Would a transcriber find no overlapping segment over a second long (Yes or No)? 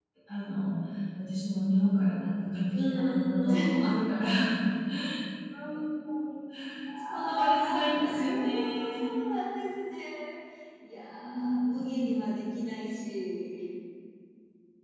No